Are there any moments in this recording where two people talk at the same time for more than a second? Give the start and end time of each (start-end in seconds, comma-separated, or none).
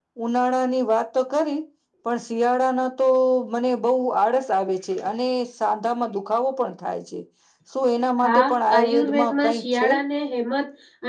8.2-9.9